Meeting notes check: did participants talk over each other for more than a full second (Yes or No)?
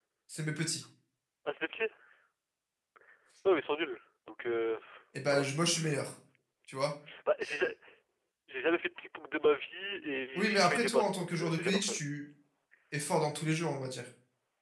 Yes